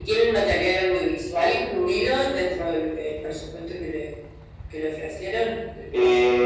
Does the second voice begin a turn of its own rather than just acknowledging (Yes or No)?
Yes